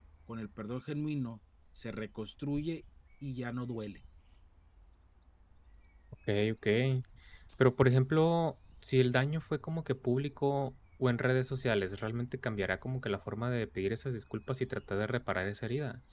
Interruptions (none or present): none